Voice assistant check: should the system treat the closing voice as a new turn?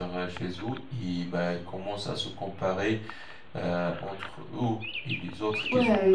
Yes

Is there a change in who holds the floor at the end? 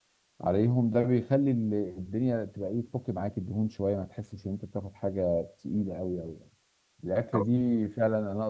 No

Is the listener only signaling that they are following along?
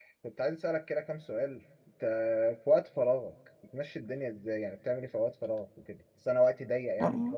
Yes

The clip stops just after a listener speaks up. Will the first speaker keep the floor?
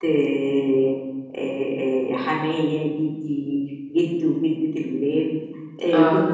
Yes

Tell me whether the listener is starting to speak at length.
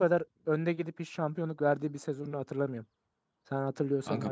Yes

